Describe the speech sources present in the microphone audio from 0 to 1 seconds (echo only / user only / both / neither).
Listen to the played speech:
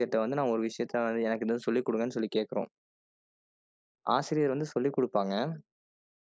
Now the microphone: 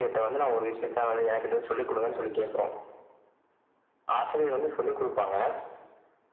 echo only